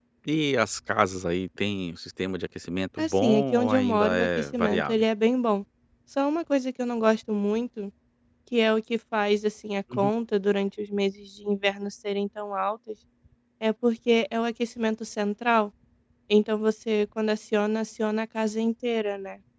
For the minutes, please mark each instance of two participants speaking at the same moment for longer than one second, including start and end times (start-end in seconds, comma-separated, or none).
3.0-5.0